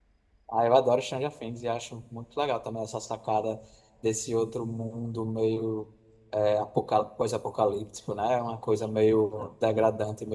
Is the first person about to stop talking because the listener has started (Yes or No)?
No